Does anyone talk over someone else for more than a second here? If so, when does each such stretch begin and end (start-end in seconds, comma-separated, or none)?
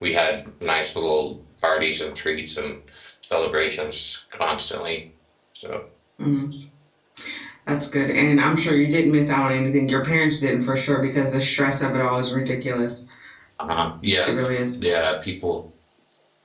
none